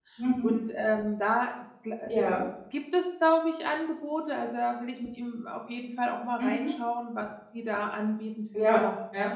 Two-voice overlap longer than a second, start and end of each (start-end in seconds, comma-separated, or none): none